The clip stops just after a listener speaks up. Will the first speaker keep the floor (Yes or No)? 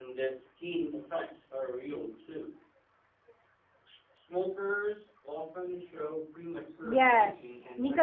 No